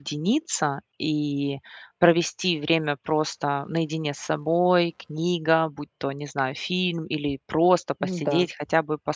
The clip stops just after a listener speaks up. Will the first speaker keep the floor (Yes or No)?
Yes